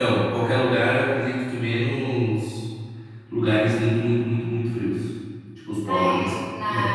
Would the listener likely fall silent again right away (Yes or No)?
No